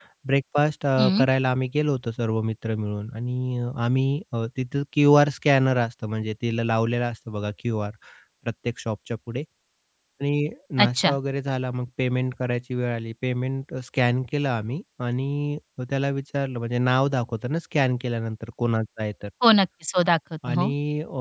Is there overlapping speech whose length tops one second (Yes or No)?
No